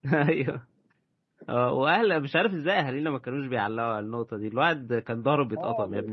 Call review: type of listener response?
taking over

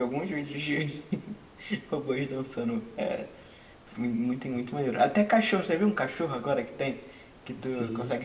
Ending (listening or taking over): listening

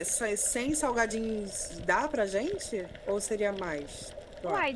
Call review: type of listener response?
taking over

